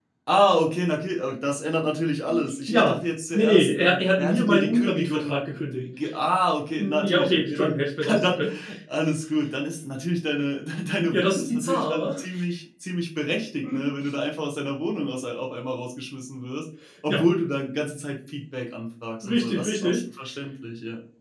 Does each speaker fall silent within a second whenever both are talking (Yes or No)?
No